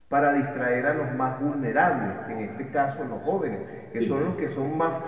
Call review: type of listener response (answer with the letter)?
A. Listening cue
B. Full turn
A